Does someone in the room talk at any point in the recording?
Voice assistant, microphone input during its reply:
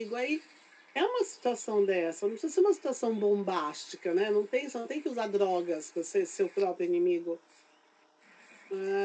No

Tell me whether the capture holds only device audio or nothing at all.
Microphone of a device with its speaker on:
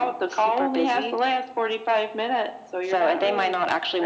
Yes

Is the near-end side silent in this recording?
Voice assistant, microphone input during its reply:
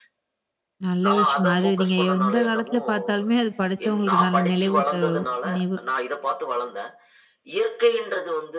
No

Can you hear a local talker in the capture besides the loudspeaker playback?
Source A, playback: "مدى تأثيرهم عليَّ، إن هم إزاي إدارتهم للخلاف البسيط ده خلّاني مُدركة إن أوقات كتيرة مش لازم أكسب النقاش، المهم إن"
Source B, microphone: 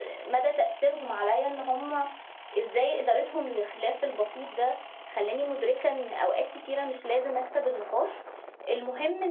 No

